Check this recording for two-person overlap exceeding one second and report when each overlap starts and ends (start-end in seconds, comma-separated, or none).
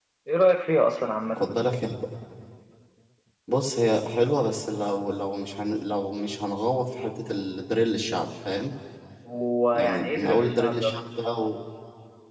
9.7-11.0